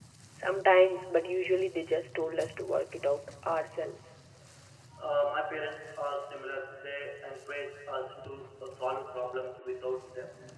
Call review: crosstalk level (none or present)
none